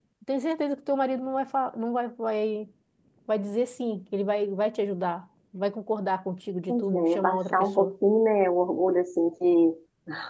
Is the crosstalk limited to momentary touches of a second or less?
No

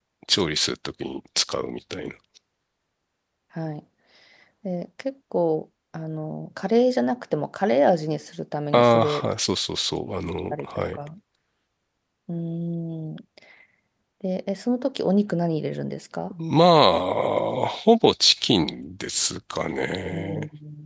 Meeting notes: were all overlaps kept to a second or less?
Yes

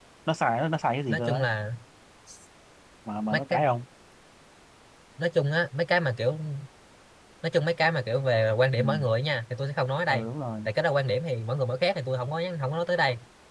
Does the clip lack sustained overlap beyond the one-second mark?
Yes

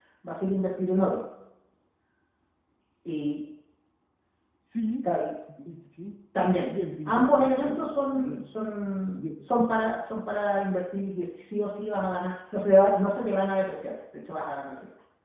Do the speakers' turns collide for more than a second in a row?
Yes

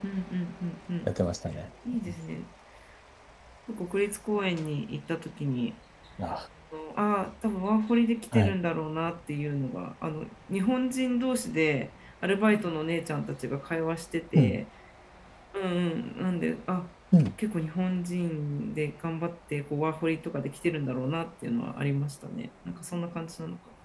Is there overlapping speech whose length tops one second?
No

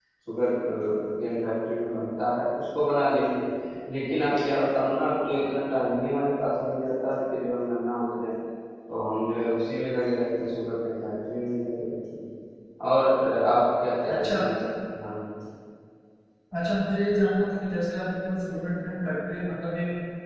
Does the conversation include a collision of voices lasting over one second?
No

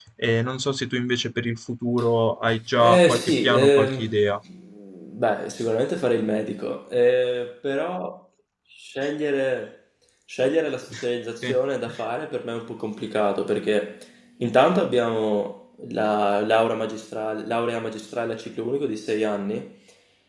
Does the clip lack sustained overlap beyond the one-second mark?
No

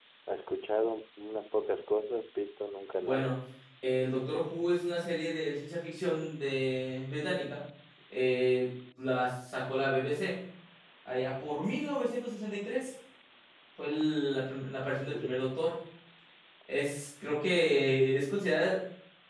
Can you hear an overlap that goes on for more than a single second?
No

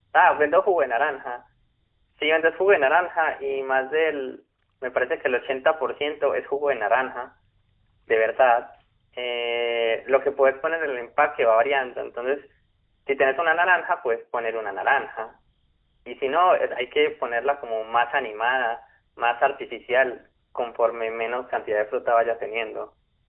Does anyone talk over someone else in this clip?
No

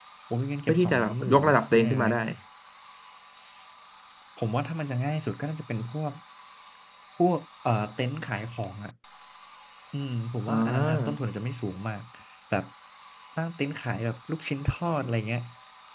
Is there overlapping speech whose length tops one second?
Yes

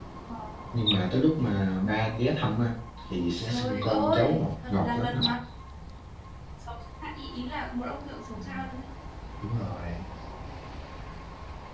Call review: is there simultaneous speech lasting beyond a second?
Yes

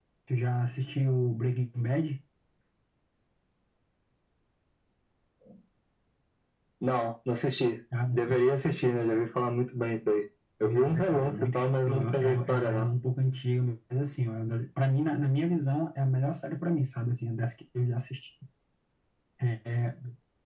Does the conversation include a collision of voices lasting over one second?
Yes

